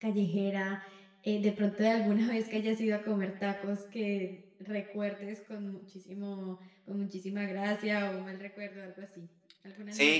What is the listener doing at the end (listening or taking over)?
taking over